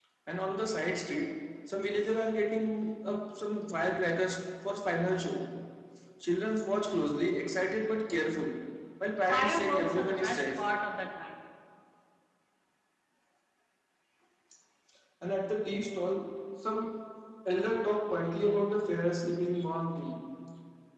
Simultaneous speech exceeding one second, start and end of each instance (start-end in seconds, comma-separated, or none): 9.3-10.7